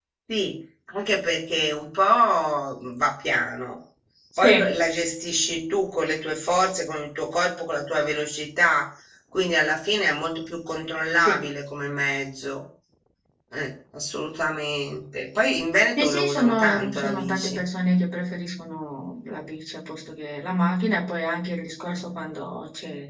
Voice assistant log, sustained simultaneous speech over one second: present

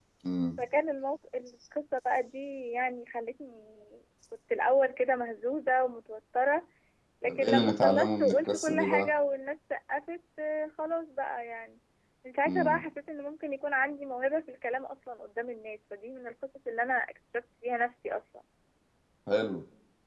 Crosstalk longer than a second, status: present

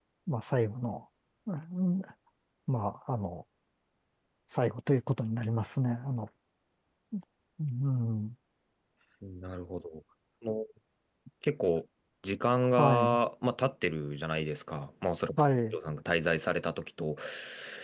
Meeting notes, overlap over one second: none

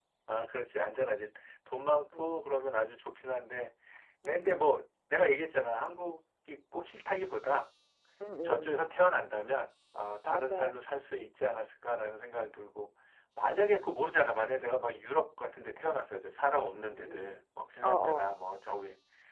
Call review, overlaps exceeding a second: none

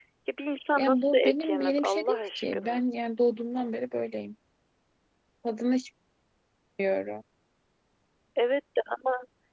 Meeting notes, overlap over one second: present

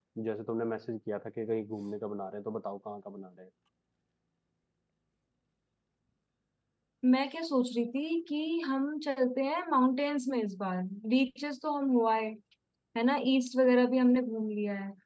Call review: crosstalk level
none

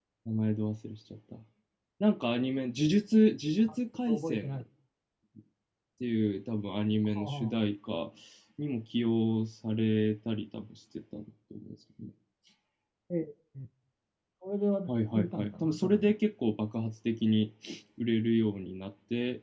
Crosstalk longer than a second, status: present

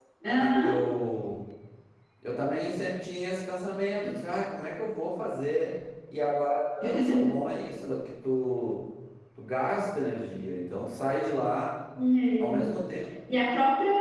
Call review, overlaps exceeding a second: none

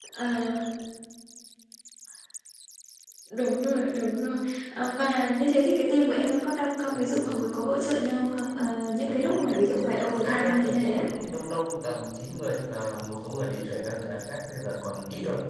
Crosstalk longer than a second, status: present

